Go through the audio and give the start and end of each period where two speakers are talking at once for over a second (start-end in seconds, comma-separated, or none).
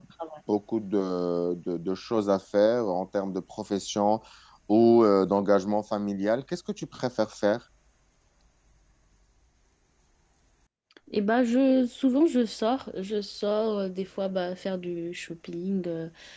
none